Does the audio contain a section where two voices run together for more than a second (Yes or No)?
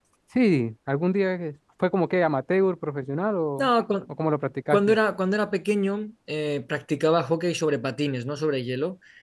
No